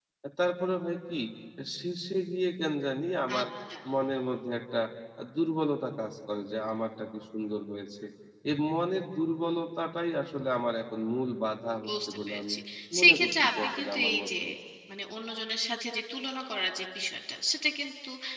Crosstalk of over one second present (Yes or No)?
Yes